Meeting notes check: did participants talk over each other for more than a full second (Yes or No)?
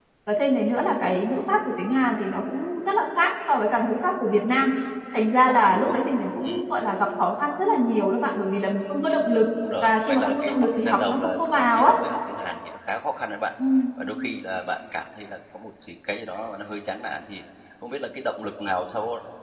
Yes